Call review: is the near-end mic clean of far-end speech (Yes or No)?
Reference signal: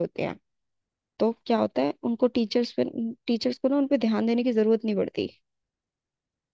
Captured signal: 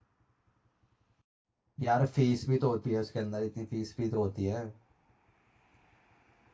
Yes